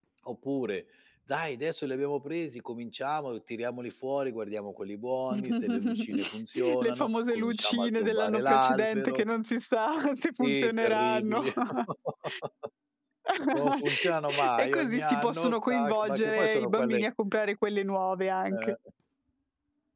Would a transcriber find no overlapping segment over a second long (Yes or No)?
No